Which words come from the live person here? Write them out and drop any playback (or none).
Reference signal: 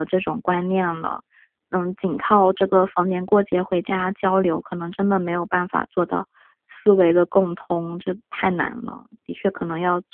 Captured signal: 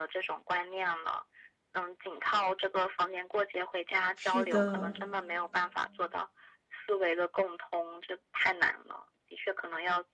是的，